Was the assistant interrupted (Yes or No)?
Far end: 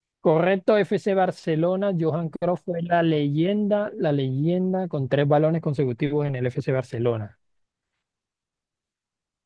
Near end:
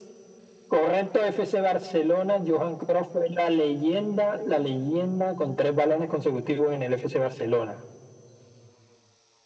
No